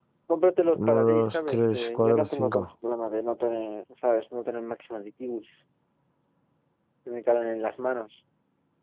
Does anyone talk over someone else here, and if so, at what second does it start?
0.7 s

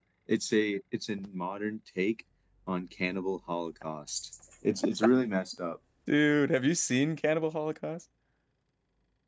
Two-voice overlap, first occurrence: none

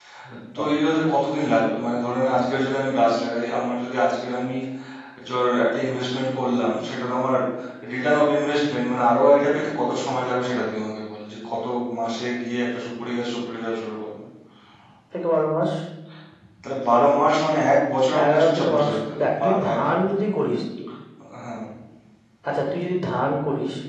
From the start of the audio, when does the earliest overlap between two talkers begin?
18.1 s

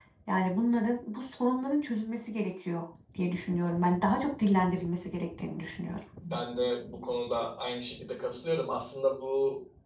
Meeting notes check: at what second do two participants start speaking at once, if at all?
none

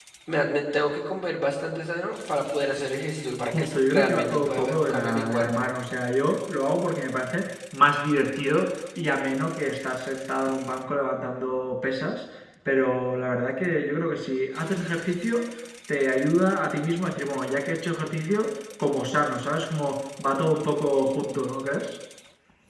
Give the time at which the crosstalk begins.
3.5 s

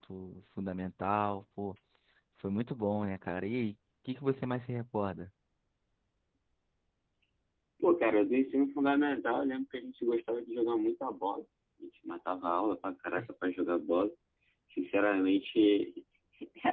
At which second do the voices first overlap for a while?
none

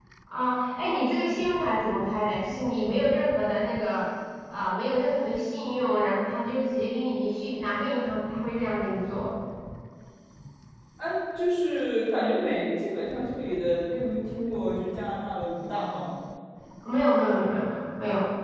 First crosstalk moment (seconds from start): none

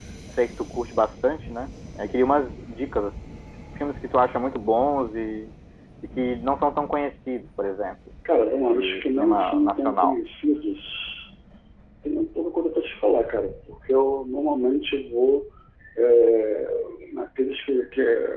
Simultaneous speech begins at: 8.6 s

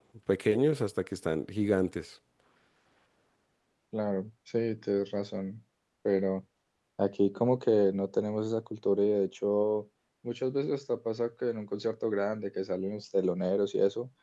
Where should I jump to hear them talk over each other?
none

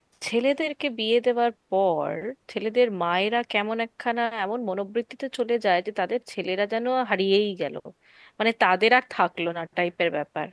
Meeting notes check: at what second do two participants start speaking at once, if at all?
none

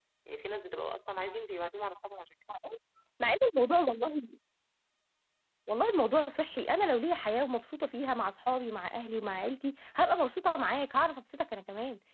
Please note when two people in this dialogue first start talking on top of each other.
none

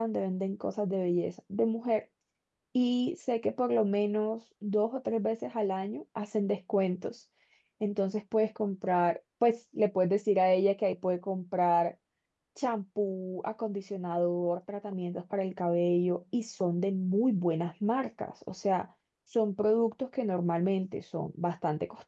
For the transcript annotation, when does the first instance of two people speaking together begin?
none

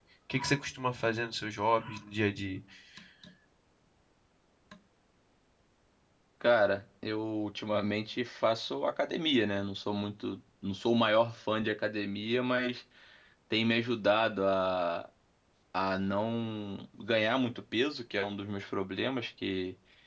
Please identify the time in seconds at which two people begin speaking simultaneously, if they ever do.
none

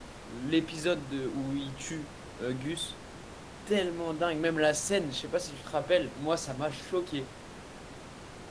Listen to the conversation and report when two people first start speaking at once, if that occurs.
none

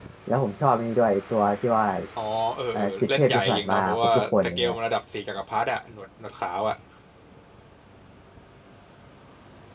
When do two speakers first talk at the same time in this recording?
2.7 s

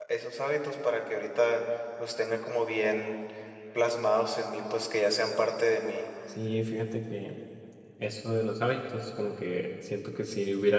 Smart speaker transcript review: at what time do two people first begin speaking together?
none

